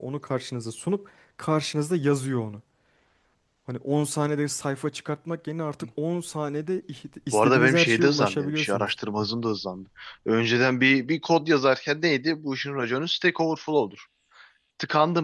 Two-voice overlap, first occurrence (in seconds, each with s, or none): 7.3 s